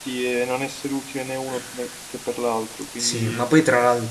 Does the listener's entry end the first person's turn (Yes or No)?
Yes